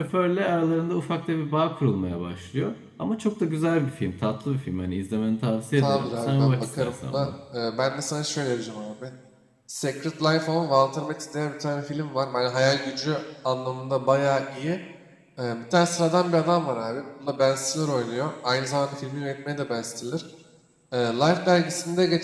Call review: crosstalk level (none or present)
present